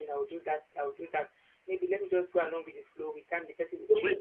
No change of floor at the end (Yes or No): No